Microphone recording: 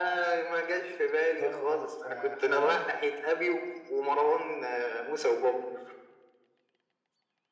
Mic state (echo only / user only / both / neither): both